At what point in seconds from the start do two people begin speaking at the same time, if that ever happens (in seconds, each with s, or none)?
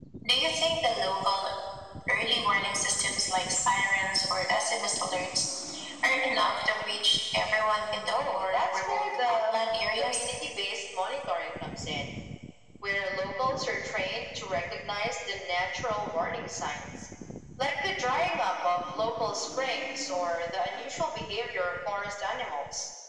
8.1 s